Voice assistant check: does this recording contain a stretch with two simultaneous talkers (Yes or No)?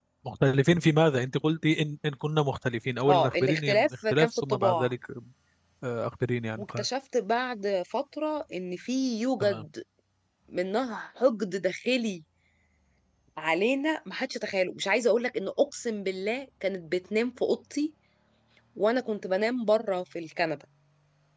Yes